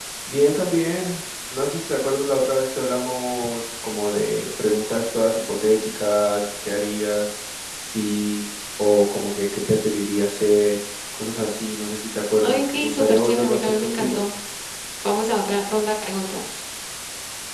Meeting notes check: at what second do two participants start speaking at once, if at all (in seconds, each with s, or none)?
12.4 s